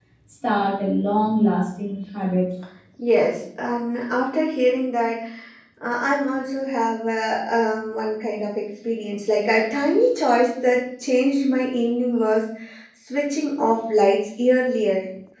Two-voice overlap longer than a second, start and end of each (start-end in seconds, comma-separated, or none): none